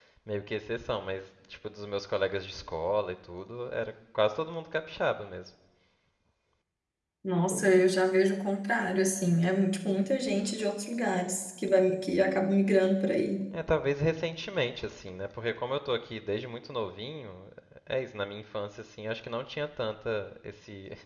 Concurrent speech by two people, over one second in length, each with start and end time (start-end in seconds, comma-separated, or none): none